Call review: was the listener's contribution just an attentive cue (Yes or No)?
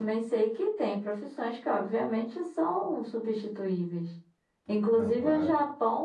Yes